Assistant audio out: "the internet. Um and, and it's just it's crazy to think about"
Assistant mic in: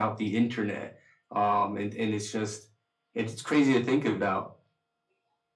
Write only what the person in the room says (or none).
none